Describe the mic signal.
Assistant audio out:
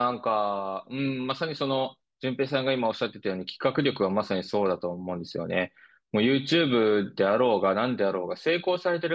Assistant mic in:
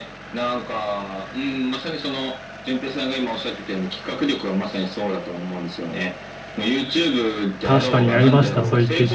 both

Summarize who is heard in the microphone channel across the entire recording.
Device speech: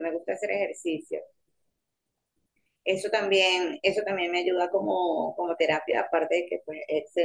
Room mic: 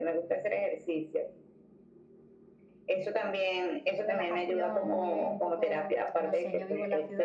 both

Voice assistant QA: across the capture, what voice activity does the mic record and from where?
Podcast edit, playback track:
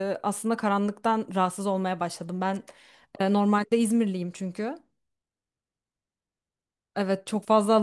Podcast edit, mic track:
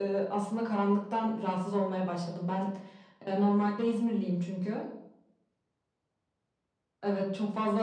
echo only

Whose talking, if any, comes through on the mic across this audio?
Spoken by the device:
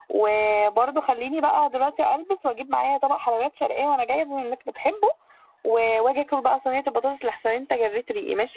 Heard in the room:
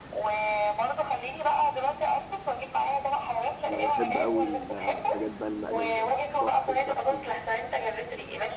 both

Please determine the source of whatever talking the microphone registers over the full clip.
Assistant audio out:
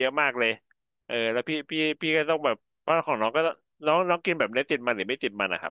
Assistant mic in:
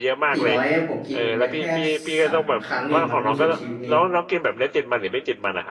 both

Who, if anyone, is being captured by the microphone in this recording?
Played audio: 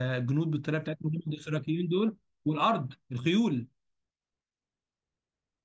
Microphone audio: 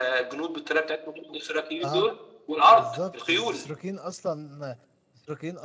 both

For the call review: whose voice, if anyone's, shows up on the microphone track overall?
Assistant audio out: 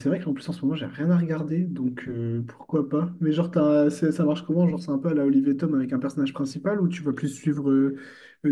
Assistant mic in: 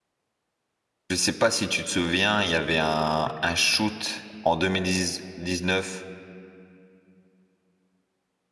user only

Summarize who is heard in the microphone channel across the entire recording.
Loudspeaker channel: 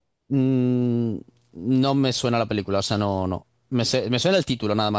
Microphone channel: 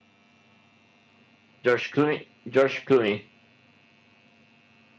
user only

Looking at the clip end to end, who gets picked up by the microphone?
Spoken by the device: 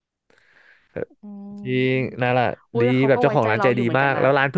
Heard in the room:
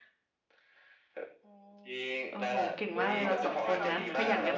both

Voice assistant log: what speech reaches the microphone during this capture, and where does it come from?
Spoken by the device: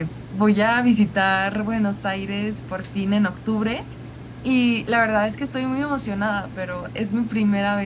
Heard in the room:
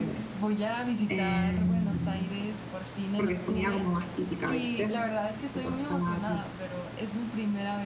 both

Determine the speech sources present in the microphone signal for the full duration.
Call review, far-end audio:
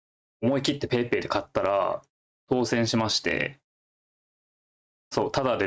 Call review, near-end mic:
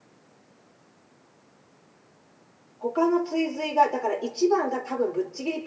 user only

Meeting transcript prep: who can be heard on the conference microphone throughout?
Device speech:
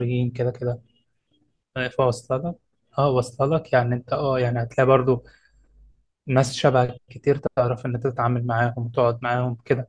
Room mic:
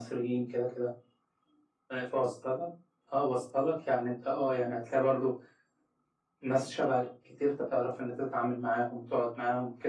echo only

